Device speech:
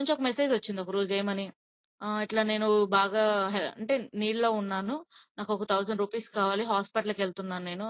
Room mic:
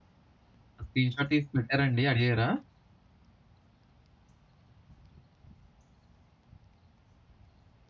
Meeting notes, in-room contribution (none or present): present